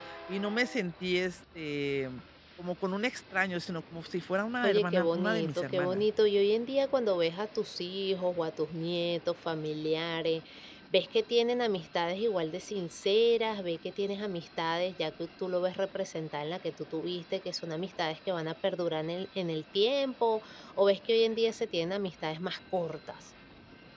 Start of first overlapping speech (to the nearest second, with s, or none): 5 s